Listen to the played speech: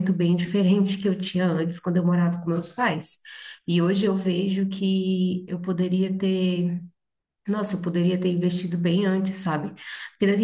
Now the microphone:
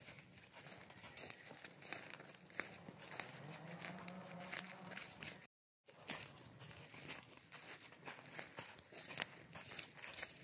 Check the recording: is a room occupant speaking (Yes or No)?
No